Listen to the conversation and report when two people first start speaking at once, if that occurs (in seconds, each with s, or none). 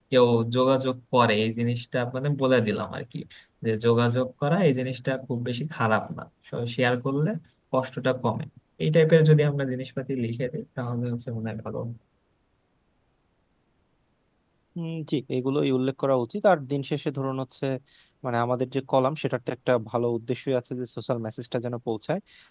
none